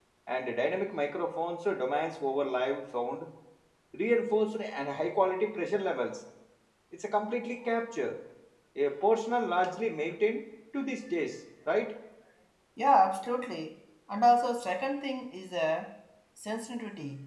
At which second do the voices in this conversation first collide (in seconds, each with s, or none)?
none